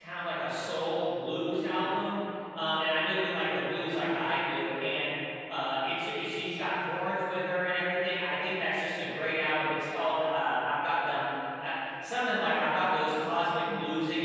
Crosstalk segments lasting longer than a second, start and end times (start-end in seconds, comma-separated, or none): none